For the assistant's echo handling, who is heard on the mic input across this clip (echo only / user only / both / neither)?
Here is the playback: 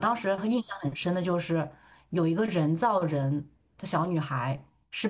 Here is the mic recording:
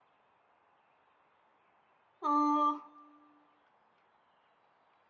user only